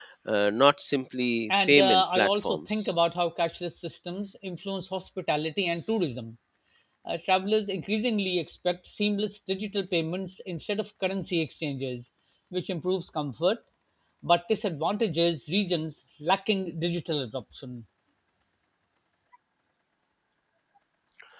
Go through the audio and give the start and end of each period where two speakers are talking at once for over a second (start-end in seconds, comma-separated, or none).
1.5-2.9